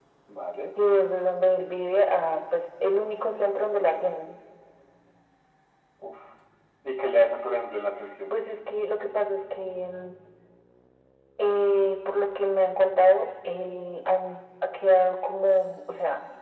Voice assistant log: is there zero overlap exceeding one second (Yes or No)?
Yes